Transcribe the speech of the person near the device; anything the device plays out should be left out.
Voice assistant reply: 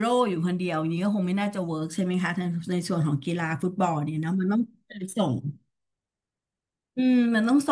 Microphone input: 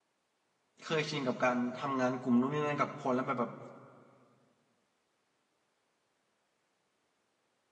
เคยชินกับการทำงานกลุ่มนู่นนี่นั่นกับคนแล้วแบบแบบ

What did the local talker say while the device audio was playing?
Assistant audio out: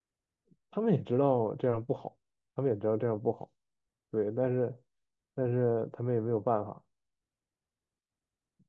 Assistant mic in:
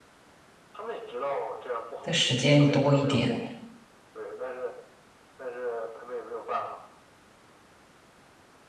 的时间多一点，

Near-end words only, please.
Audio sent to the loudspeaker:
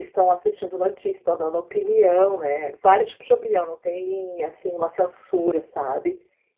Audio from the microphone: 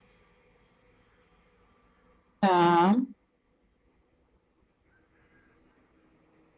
Tá.

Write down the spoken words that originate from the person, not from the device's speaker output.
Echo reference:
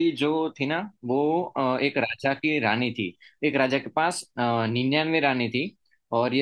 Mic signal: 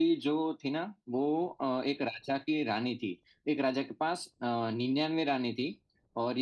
none

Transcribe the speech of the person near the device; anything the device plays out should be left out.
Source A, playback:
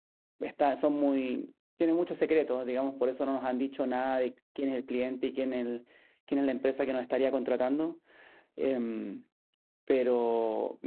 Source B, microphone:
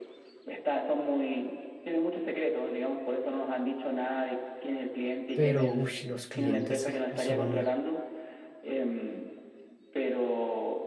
Pero uy, los clientes son

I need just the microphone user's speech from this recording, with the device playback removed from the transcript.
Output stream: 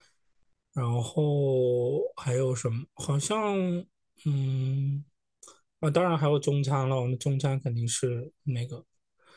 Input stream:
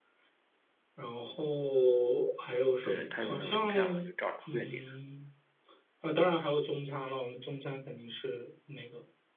对他有那个图片嘛，就照着图片点。

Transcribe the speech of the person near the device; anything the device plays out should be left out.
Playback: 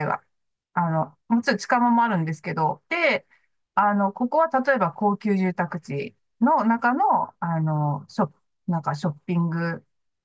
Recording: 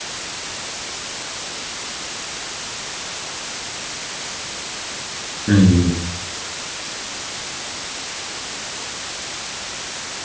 うんうん

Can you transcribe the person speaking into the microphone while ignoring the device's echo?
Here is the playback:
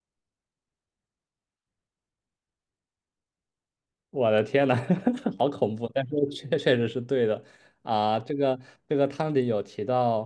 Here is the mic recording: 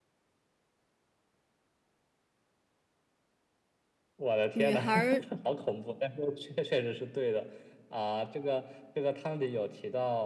女孩儿

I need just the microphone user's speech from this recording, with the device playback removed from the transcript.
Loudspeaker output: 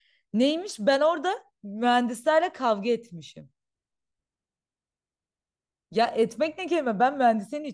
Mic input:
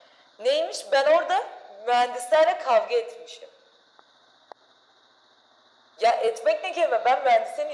none

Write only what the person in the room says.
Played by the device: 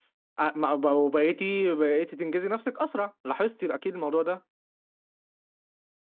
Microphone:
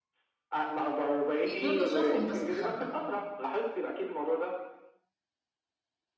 يعني دول بشوفهم بستخبى

